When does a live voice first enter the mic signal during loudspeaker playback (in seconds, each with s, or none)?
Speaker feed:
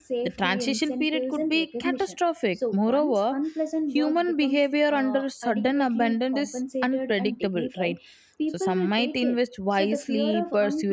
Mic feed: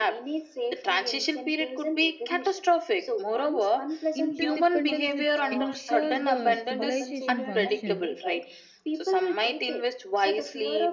4.1 s